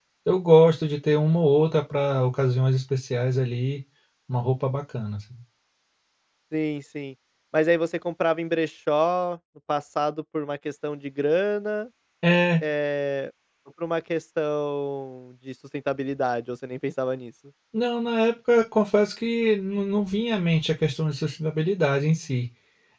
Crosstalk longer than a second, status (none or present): none